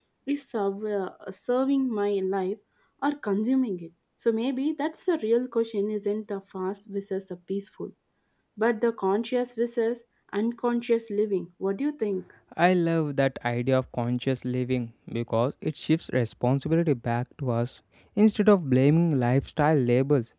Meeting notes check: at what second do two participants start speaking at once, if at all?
none

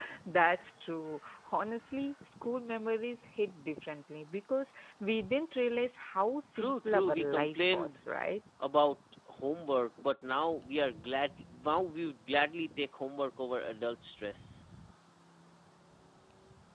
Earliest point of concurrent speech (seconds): 6.6 s

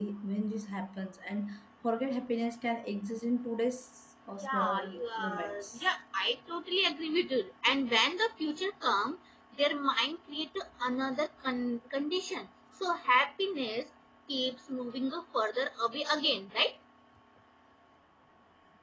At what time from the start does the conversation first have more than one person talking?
4.4 s

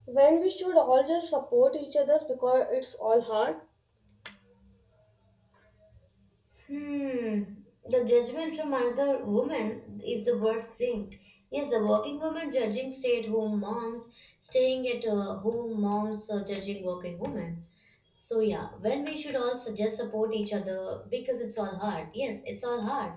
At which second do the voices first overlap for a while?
none

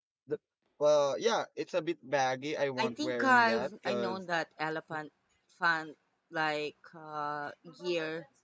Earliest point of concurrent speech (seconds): 2.8 s

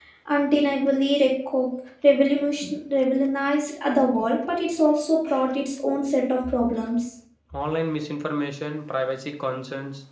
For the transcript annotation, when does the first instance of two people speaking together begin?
none

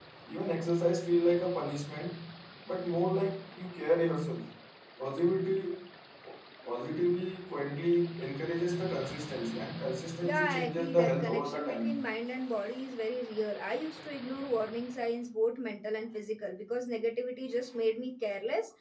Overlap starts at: 10.2 s

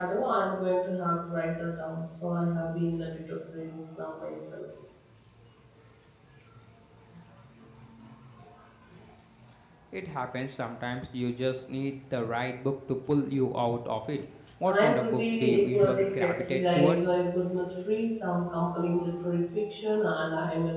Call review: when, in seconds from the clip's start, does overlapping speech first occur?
14.7 s

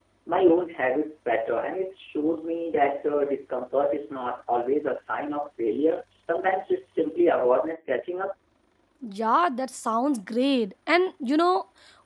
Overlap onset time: none

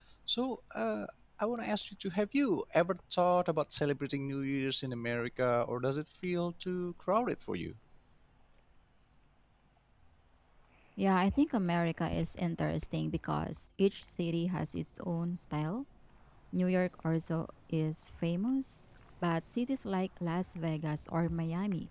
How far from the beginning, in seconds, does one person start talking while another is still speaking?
none

